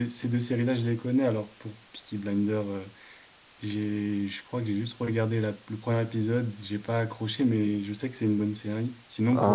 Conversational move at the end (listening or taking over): taking over